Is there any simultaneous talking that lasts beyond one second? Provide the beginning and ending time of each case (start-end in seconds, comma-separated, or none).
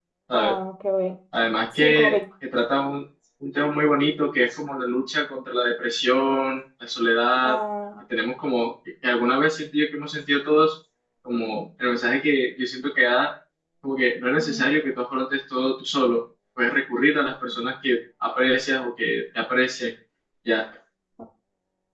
none